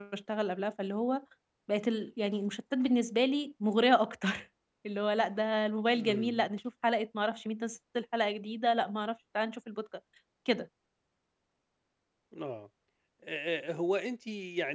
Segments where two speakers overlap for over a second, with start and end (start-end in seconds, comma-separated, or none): none